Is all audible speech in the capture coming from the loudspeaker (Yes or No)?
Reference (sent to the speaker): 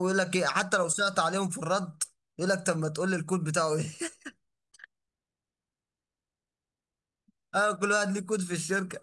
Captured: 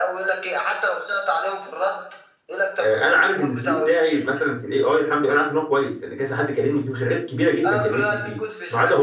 No